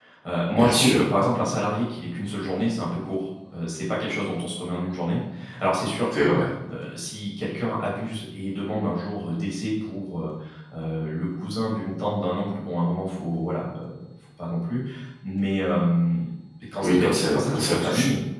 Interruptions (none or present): present